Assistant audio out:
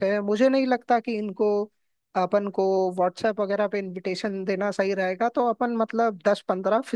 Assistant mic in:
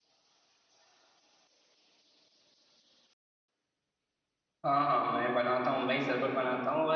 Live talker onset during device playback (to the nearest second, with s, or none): 5 s